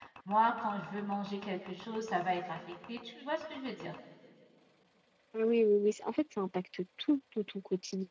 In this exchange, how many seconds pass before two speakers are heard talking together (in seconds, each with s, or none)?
none